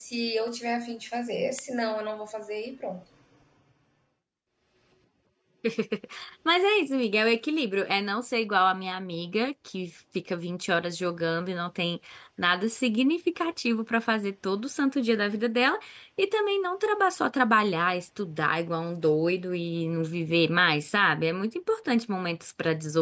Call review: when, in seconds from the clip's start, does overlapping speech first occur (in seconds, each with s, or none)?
none